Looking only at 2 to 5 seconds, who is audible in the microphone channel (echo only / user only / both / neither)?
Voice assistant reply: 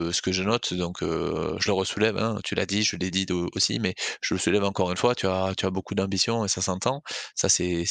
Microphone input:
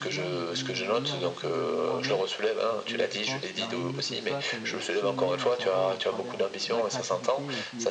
both